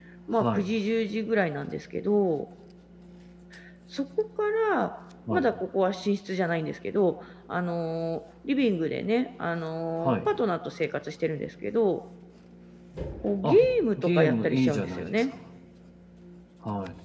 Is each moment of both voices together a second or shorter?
No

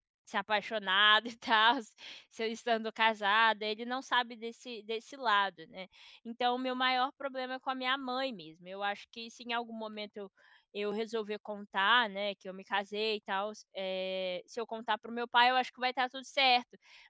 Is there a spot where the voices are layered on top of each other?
No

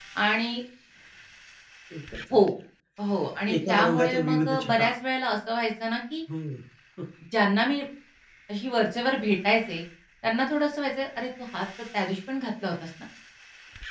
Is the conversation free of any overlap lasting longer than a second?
No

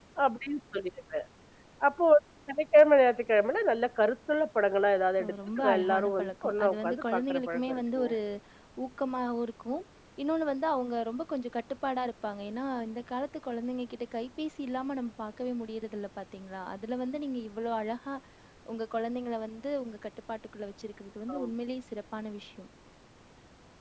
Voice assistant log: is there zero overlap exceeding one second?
No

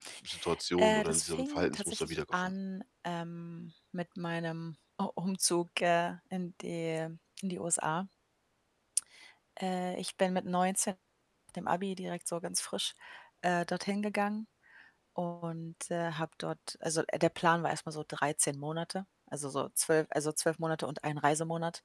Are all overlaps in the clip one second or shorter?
No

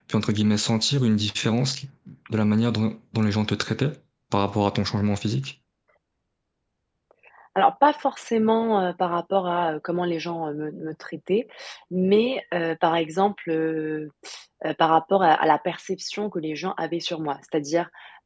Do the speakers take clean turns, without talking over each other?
Yes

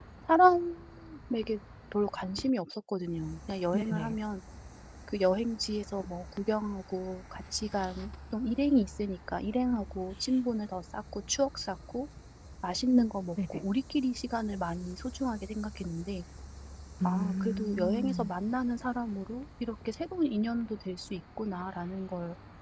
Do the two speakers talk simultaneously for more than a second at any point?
Yes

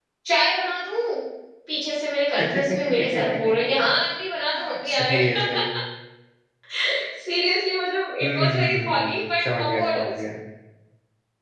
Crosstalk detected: Yes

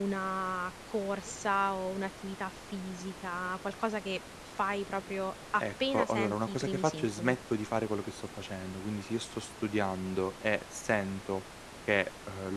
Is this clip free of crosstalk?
No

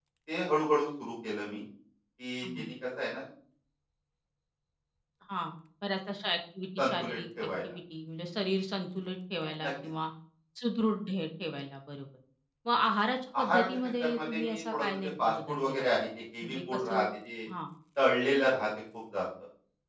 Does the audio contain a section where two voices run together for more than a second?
Yes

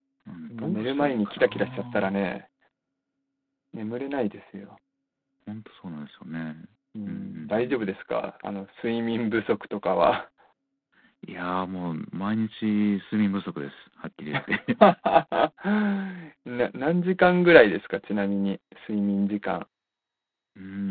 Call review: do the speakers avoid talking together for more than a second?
No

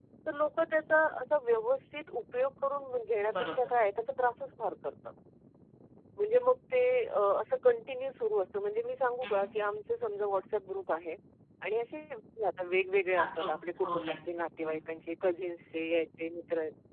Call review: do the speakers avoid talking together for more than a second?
No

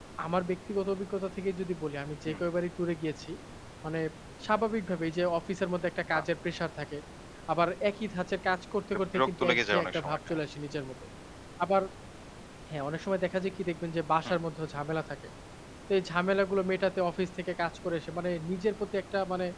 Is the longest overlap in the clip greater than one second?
Yes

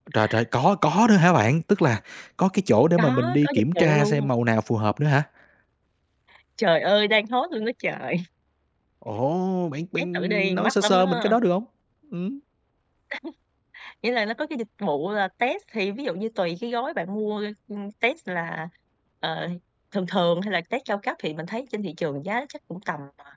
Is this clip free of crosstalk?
No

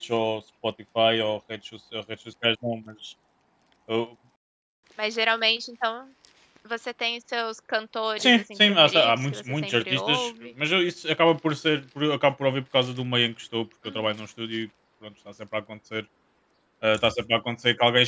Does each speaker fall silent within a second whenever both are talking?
No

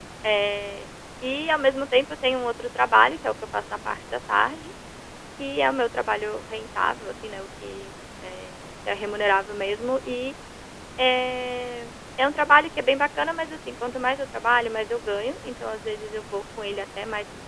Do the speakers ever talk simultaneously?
No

